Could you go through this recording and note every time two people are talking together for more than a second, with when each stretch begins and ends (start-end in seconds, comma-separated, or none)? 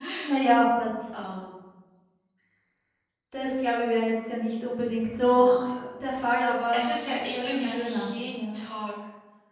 6.7-8.6